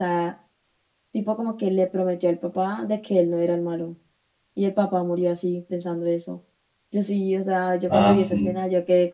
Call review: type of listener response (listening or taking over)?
listening